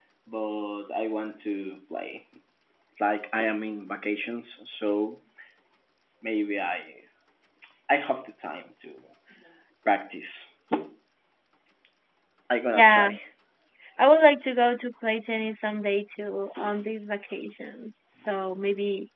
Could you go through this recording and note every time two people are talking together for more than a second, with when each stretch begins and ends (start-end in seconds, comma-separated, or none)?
none